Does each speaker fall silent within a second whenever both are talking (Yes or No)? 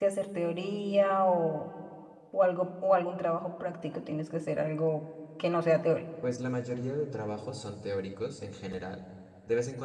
Yes